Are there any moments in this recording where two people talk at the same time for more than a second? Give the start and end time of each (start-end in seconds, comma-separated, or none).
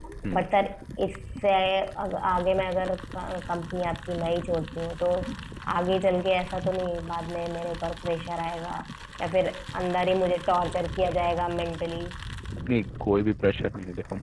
none